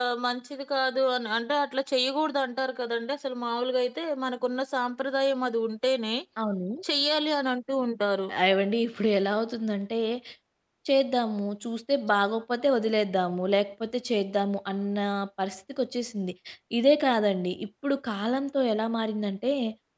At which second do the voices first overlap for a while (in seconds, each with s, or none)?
none